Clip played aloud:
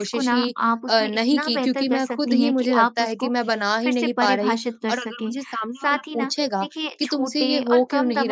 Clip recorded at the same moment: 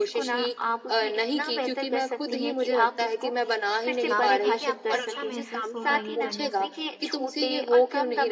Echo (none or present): present